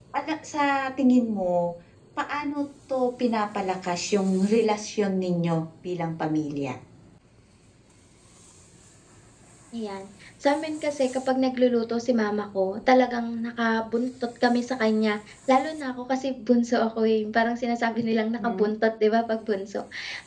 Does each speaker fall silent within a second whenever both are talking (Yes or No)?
Yes